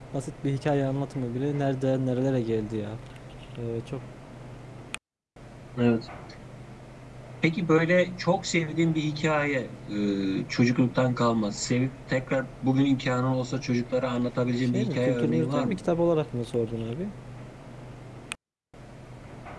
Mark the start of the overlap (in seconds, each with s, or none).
14.7 s